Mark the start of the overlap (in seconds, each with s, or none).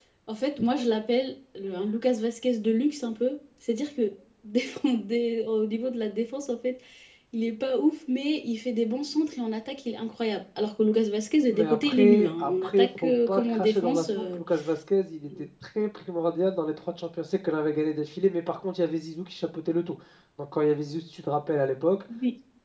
11.5 s